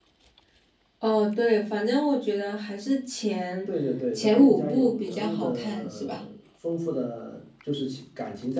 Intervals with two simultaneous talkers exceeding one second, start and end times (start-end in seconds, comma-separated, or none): 4.2-6.3